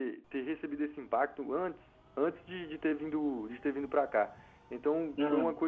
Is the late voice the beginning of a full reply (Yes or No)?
No